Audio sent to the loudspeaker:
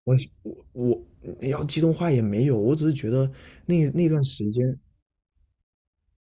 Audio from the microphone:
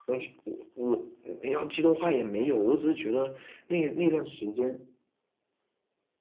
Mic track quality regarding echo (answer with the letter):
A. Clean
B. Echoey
B